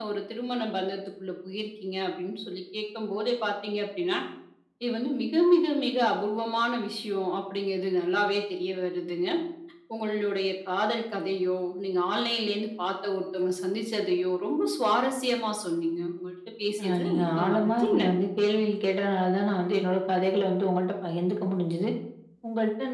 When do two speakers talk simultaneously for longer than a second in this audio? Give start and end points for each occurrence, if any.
16.8-18.2

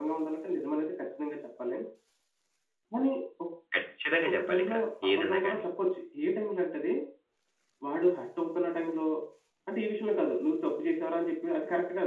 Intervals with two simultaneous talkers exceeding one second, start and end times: 4.2-5.6

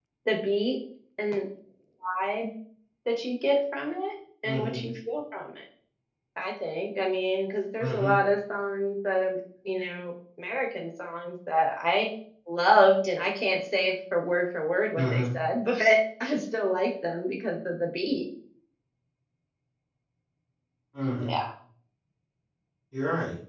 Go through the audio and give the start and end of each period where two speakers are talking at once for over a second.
none

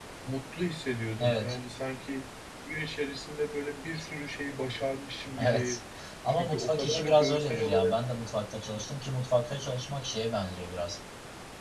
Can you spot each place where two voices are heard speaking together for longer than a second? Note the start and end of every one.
6.3-8.0

